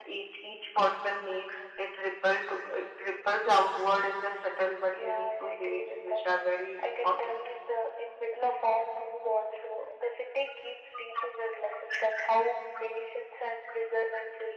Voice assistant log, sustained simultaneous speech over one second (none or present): present